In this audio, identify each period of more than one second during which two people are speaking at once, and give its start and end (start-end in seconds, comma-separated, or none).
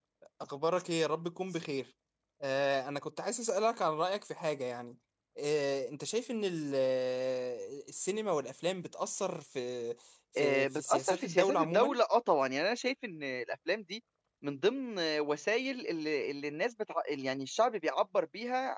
10.4-12.0